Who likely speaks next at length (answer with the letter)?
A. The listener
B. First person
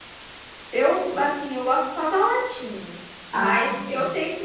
B